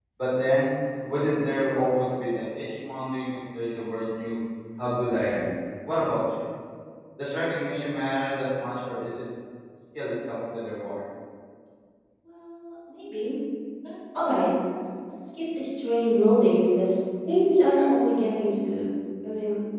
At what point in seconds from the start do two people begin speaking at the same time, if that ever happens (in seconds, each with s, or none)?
none